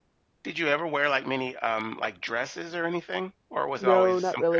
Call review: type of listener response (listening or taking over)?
taking over